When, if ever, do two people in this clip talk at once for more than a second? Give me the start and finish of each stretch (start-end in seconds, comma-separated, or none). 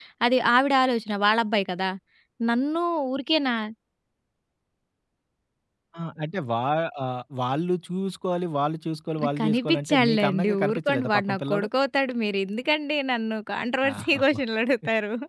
9.4-11.7